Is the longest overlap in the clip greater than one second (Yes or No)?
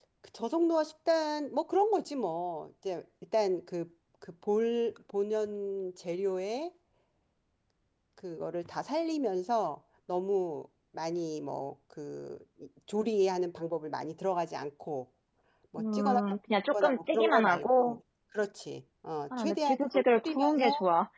Yes